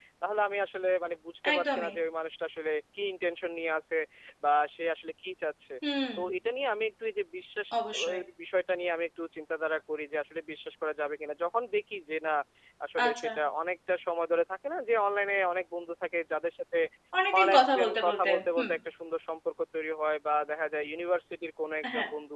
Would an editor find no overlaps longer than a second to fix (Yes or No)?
No